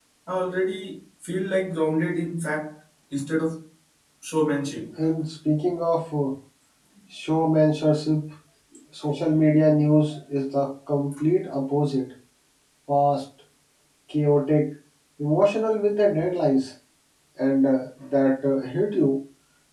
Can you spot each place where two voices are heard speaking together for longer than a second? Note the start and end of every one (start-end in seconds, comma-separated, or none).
none